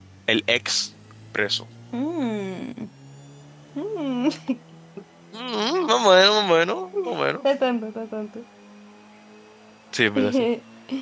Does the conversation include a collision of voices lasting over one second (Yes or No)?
No